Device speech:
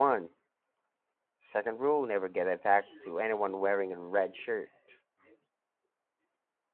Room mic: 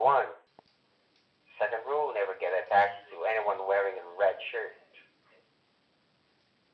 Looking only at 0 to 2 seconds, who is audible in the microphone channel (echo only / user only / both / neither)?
echo only